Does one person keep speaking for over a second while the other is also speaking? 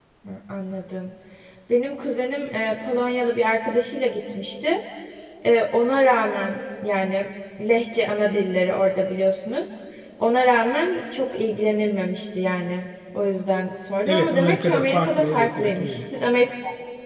Yes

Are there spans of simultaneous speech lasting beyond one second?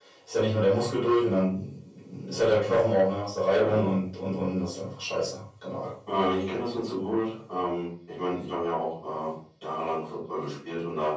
No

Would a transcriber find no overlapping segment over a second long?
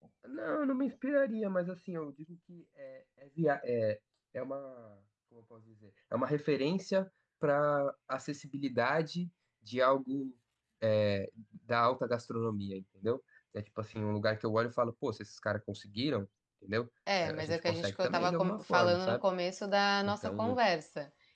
No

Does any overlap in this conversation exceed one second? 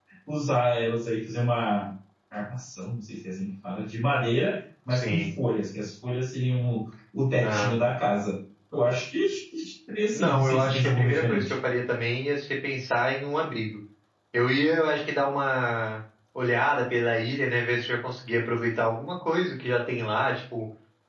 Yes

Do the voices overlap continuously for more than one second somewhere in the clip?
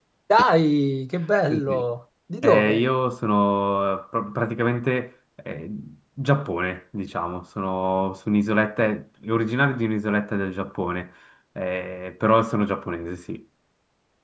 No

